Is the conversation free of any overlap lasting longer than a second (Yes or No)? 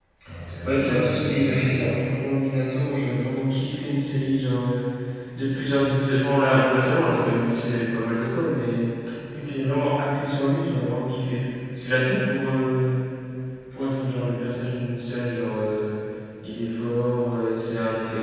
No